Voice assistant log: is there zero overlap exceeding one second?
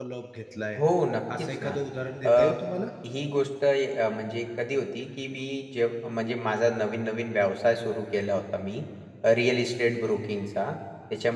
Yes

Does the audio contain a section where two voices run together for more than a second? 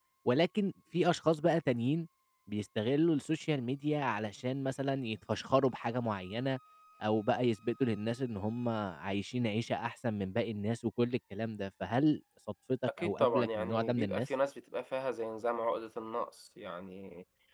Yes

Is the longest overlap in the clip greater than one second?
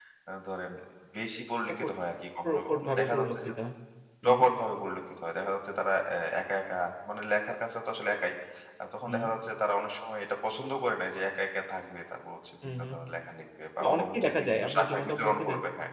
Yes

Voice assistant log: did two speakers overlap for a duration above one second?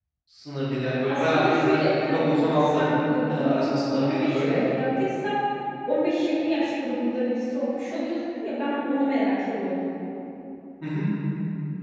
Yes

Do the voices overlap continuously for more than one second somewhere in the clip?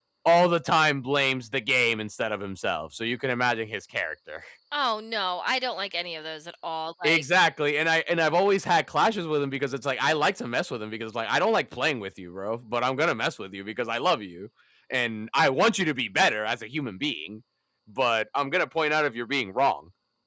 No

